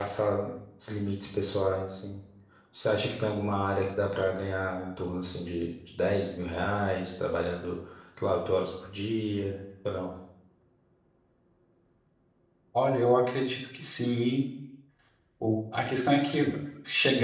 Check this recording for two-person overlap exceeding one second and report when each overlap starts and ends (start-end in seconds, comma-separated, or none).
none